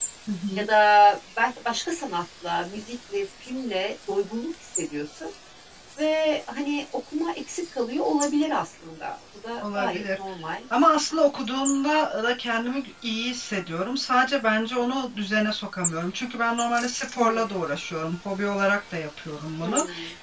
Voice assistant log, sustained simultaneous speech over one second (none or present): none